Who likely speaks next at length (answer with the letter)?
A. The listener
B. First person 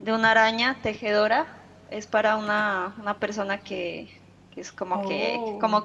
B